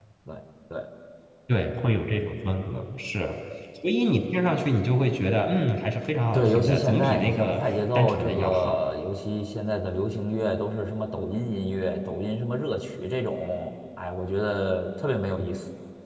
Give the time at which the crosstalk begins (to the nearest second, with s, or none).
6 s